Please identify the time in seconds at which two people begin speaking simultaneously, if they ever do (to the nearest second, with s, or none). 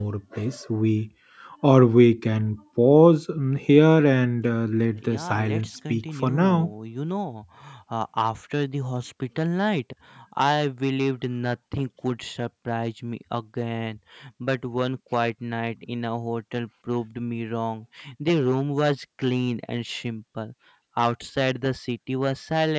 5 s